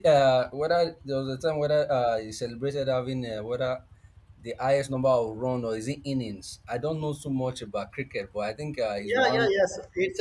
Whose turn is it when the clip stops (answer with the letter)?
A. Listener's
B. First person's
A